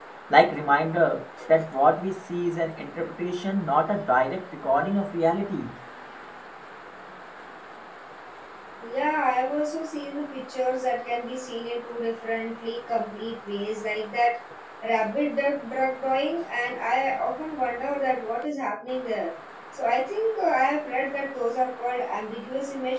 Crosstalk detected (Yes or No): No